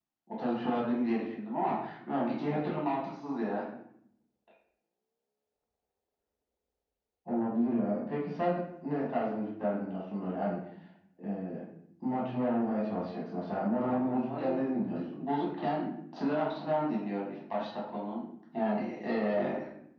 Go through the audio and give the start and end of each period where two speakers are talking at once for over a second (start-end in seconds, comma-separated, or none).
13.8-15.2